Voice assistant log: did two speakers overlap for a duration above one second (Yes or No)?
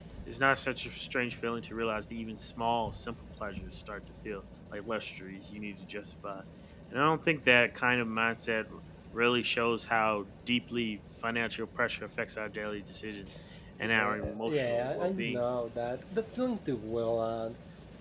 Yes